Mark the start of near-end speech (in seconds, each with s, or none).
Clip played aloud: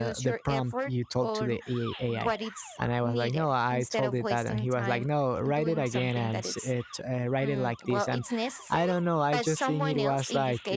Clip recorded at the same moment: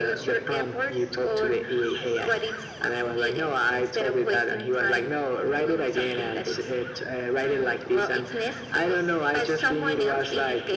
none